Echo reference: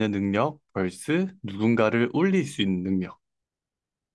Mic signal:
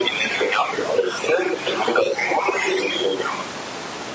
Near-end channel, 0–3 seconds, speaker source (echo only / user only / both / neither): echo only